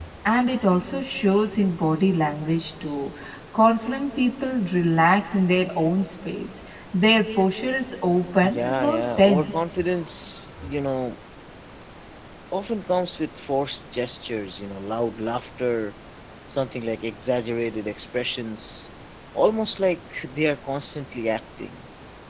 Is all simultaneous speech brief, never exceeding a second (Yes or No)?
No